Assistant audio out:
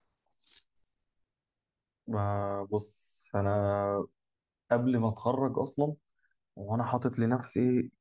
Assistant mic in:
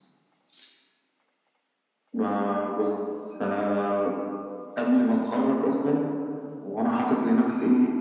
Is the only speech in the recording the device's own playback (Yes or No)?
Yes